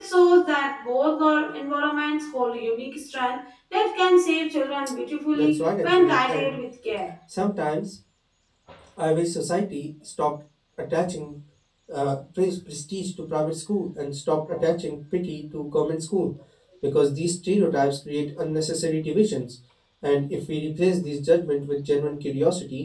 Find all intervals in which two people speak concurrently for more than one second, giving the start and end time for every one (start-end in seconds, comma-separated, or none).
5.3-6.5